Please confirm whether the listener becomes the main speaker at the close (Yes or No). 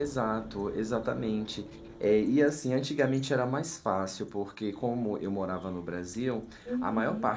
No